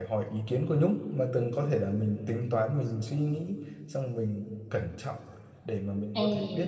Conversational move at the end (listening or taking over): listening